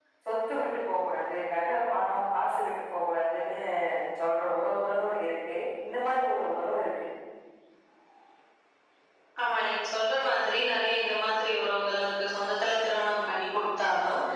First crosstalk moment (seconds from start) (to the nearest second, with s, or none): none